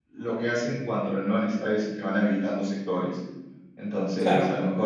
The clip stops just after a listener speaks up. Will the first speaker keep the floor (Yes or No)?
Yes